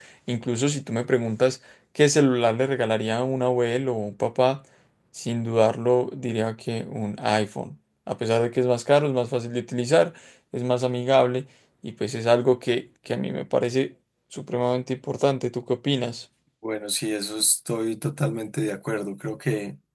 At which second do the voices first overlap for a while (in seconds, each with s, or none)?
none